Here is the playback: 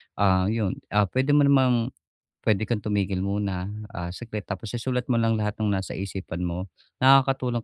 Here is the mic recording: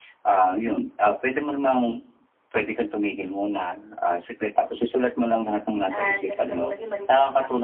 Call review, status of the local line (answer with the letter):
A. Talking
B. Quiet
A